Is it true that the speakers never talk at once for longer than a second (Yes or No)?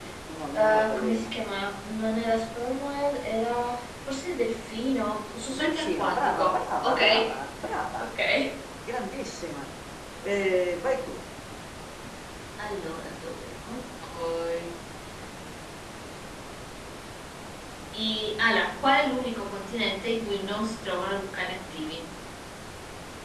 No